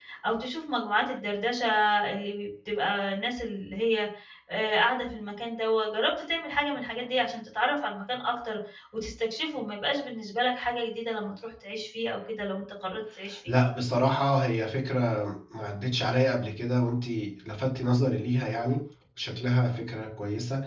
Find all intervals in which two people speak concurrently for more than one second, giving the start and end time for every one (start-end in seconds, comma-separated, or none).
none